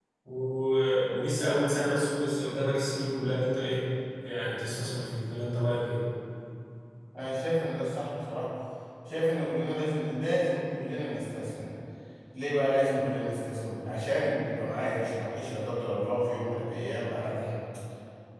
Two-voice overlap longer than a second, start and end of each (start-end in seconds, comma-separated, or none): none